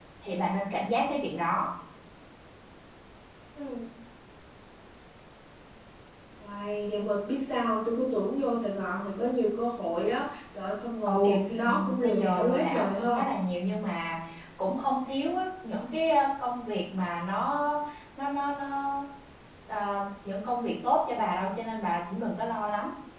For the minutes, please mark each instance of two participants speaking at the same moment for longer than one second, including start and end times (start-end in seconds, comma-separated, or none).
11.0-13.3